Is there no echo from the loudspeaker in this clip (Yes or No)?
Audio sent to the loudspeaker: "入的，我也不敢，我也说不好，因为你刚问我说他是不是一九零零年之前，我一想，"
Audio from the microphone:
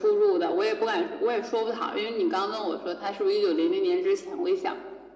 No